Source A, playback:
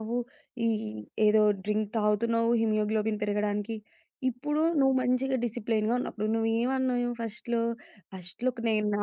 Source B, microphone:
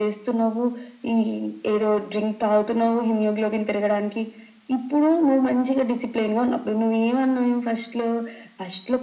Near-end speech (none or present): none